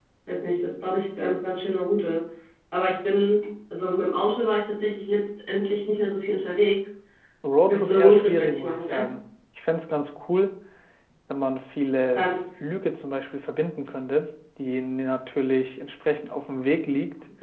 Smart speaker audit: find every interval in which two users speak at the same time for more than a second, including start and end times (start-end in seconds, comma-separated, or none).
7.7-9.0